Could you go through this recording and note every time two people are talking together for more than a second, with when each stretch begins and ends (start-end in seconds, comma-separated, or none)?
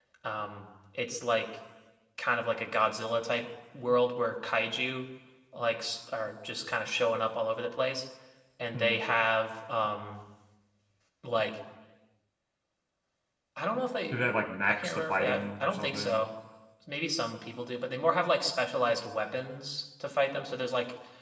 14.7-16.2